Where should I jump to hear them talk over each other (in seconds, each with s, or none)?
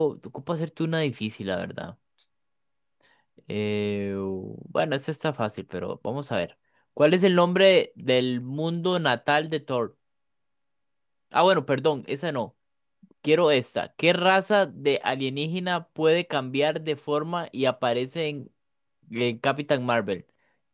none